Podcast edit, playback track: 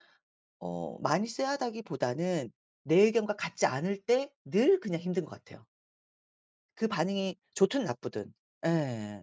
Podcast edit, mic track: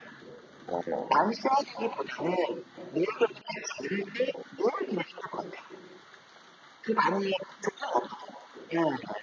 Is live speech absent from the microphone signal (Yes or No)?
Yes